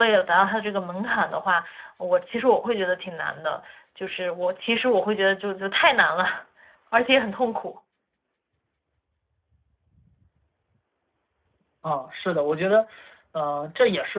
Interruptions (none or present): none